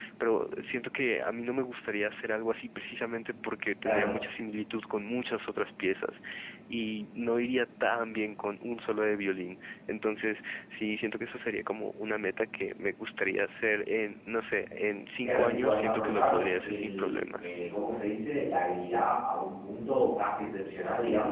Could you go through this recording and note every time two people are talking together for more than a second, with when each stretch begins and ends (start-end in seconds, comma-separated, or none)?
15.2-17.5